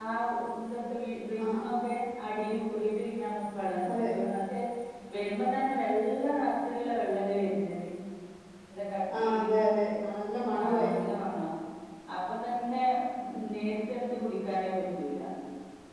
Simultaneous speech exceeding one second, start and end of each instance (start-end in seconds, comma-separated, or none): none